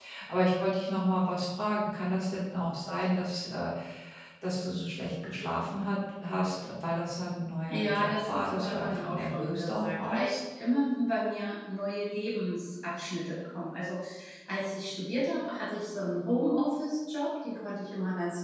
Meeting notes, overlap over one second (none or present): present